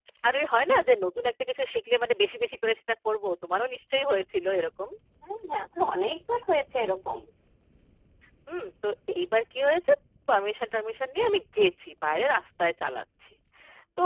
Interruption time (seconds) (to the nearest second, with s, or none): none